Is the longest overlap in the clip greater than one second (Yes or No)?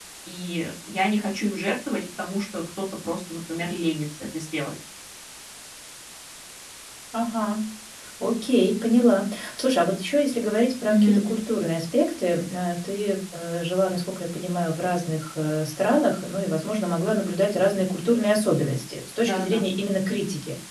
No